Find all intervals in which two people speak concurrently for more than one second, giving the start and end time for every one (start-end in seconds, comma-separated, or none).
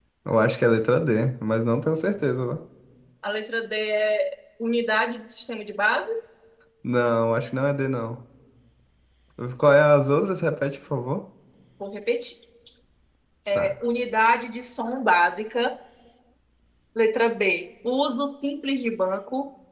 none